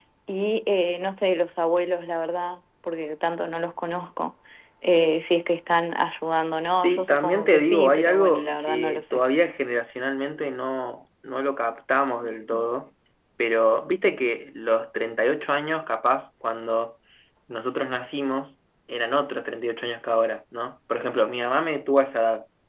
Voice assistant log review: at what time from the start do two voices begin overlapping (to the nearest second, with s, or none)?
7 s